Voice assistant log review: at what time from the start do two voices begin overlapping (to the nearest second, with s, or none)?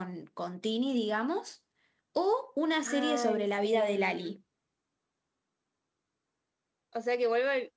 3 s